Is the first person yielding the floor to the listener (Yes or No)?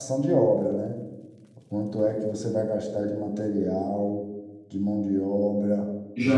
Yes